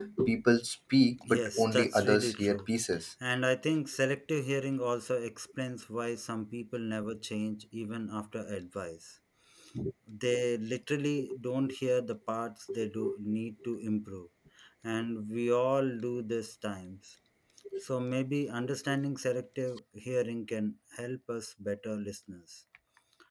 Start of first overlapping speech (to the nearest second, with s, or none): 1 s